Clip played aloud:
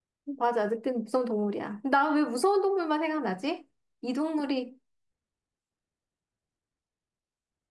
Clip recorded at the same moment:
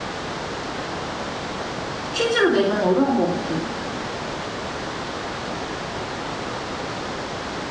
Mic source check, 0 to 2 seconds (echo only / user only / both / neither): neither